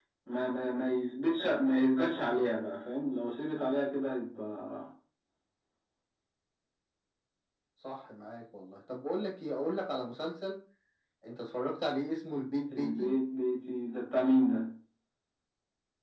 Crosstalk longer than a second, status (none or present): none